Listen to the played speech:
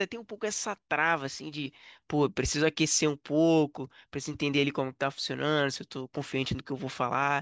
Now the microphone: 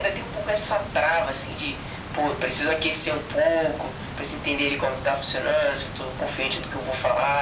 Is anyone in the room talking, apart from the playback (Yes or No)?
No